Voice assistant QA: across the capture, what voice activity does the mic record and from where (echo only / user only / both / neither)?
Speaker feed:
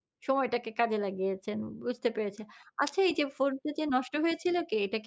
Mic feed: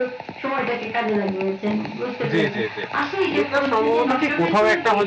both